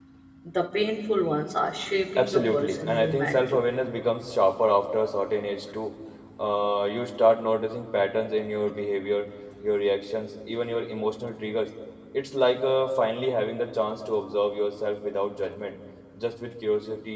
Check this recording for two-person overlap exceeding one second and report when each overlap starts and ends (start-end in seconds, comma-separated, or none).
2.2-3.6